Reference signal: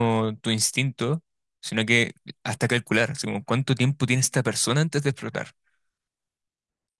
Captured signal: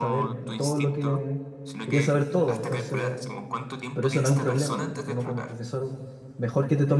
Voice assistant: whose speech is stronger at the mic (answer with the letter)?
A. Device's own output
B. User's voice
B